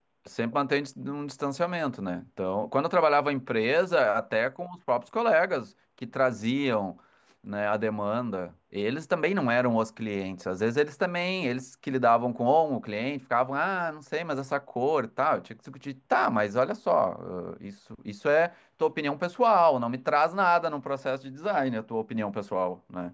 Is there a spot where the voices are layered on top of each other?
No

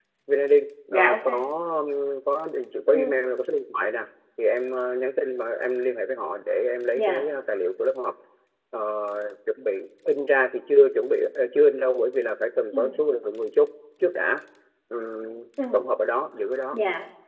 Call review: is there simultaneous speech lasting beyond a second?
No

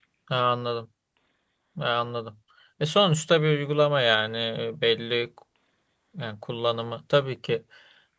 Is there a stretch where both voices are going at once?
No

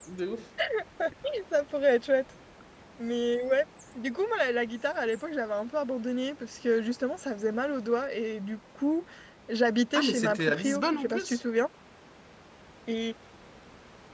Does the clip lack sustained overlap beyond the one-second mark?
No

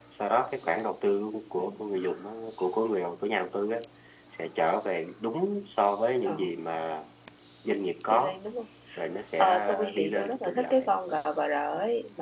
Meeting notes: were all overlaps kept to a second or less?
No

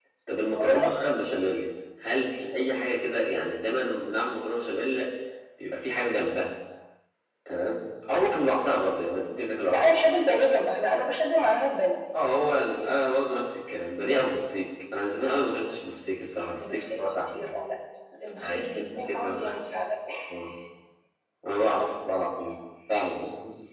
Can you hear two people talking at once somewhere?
Yes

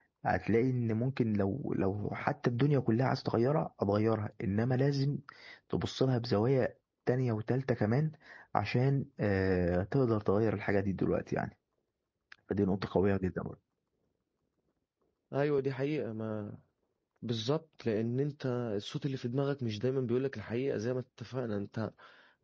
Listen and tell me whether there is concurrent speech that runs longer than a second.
No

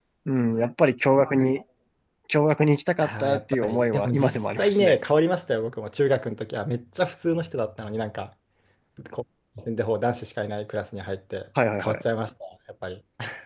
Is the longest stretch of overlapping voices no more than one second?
No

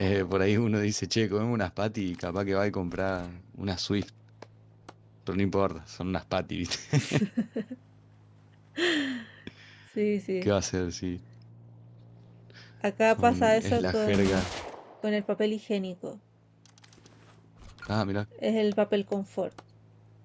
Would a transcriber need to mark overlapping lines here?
Yes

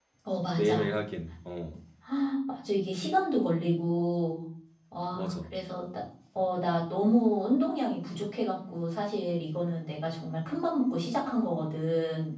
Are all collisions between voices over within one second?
Yes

